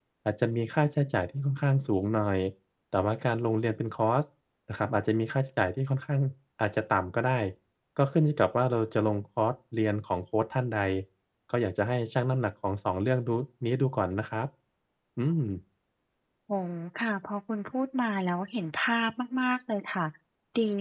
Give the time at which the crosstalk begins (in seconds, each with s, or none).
none